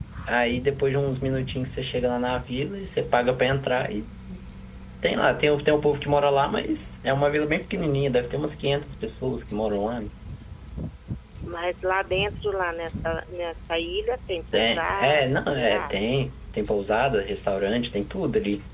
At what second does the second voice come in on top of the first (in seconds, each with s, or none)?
14.5 s